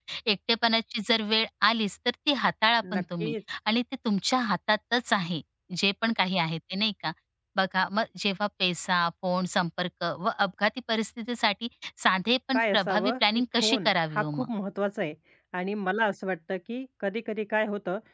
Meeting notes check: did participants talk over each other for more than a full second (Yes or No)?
Yes